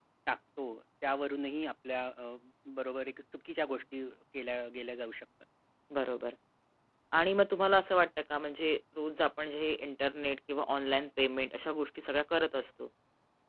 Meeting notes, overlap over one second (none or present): none